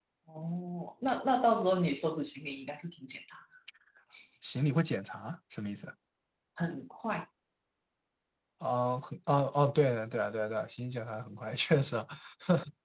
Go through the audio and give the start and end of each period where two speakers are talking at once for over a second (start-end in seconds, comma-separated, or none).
none